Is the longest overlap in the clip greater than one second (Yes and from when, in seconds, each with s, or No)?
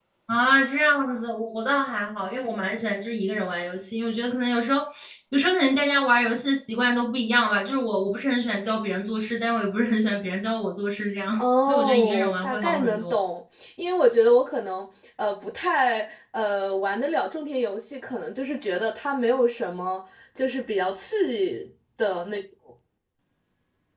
Yes, from 11.4 s